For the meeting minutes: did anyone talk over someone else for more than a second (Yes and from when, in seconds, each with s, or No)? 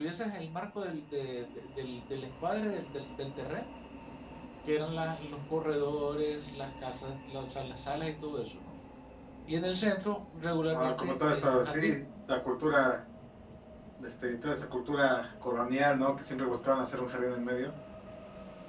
Yes, from 10.7 s